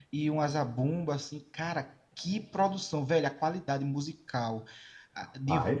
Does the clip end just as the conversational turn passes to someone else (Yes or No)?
No